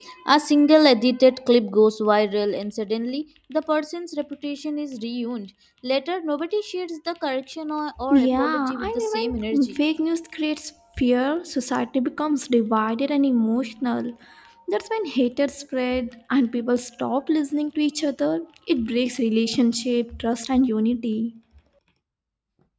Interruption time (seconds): 8.1 s

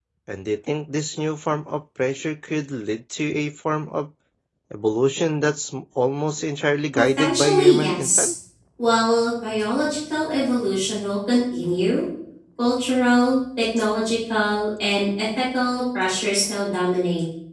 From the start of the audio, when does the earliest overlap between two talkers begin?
7.0 s

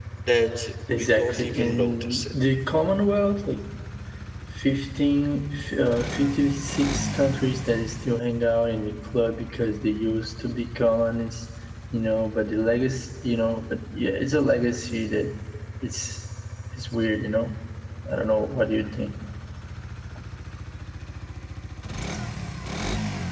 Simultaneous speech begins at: 1.0 s

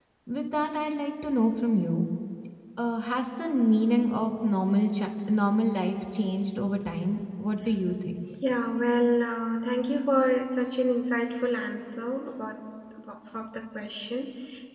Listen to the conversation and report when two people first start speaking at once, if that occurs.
none

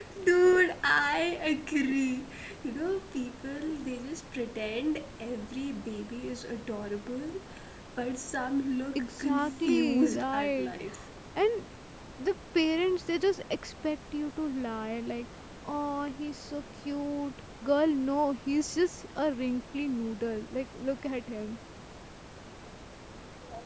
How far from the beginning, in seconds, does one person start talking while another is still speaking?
9.0 s

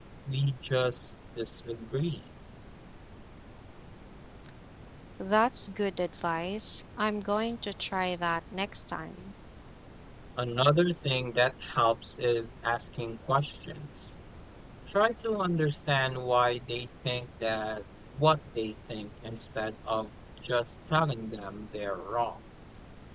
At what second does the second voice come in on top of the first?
none

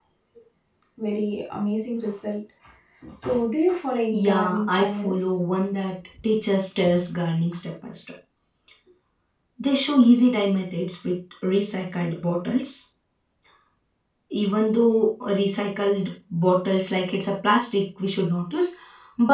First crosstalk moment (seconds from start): 4.1 s

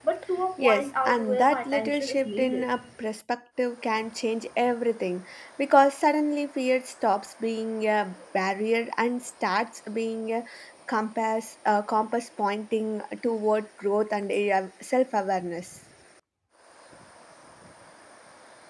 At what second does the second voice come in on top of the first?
0.6 s

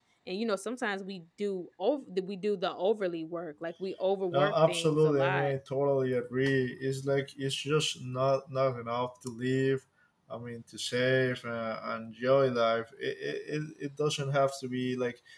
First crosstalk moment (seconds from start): 4.3 s

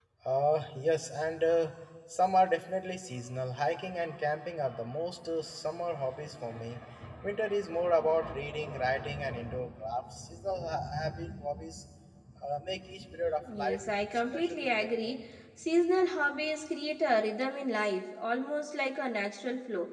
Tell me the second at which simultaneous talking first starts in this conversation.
13.4 s

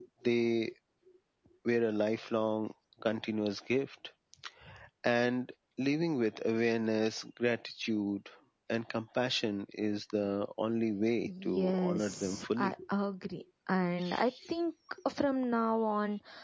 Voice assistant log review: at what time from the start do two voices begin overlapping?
11.2 s

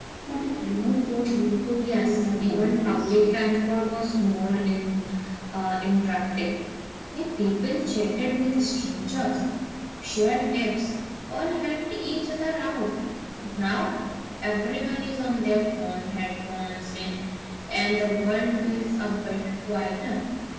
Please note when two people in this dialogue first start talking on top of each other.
1.8 s

